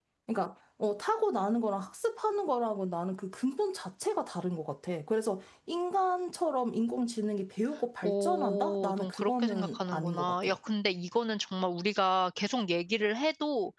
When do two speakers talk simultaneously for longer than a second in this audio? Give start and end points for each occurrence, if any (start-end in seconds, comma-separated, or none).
8.0-10.5